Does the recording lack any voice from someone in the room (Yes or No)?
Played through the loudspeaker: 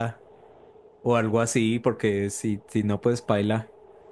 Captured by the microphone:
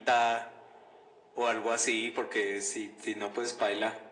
Yes